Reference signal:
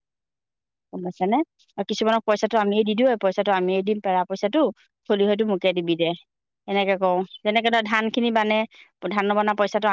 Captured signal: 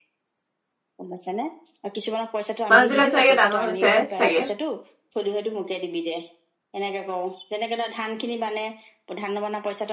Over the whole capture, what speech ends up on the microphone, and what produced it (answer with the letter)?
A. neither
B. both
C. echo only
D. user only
B